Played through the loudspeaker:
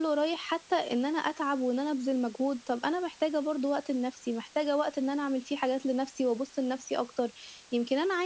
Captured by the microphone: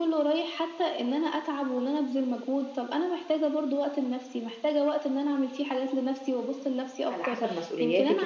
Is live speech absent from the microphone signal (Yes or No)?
No